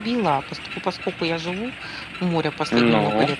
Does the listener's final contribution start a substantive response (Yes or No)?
No